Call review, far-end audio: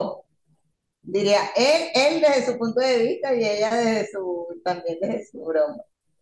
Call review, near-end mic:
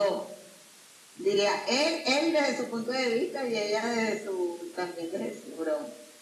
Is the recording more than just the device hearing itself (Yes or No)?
No